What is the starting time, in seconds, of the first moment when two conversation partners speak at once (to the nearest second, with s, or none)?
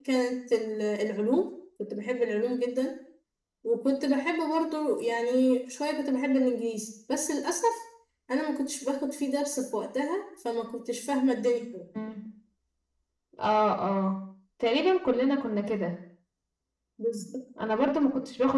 none